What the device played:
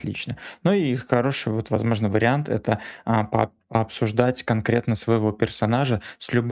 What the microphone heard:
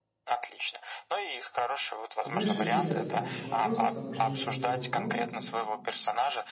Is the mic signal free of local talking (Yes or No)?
No